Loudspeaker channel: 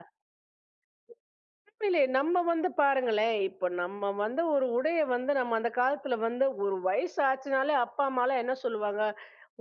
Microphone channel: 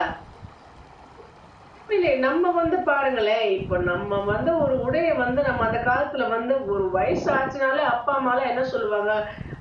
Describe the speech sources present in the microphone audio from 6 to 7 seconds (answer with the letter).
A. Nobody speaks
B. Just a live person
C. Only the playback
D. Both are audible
C